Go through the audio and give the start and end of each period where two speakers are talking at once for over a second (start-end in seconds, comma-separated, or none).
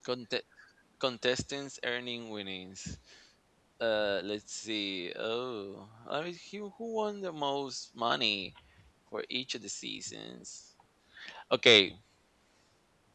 none